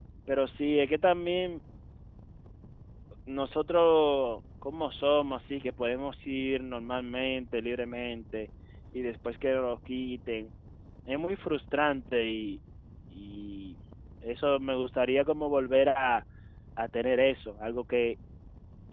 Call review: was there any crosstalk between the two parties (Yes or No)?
No